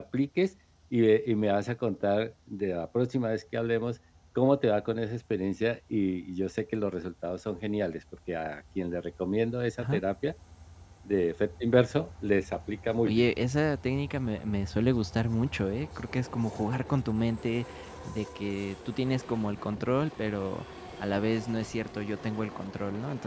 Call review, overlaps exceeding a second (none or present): none